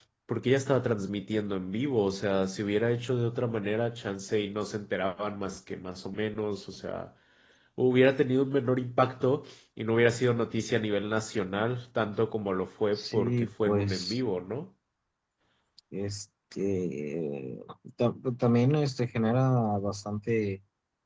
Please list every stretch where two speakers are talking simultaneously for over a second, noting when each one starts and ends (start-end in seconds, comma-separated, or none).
12.9-14.2